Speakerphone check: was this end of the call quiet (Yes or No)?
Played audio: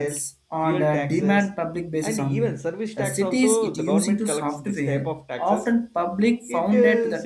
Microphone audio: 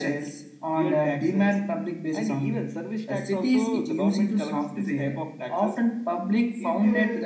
Yes